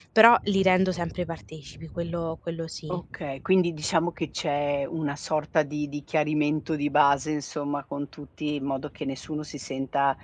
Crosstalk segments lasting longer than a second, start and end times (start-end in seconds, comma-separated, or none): none